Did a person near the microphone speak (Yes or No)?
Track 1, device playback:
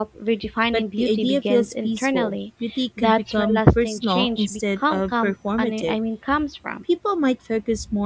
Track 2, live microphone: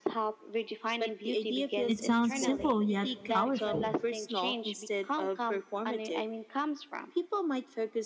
Yes